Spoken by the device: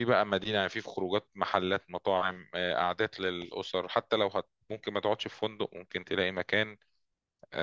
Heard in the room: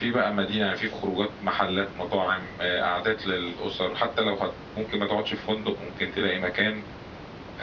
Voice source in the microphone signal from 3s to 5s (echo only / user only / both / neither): echo only